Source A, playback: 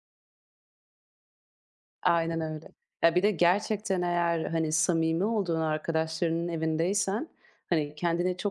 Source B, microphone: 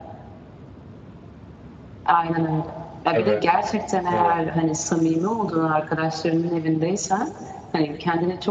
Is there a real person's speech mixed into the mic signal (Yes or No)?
Yes